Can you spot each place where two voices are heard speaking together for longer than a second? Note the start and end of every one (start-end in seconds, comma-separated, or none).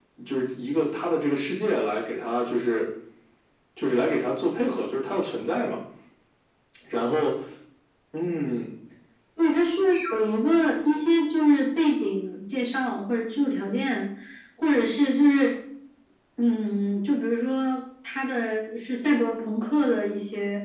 none